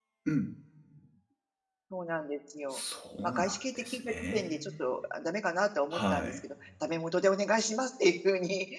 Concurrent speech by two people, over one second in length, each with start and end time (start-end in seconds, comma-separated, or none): 3.2-4.8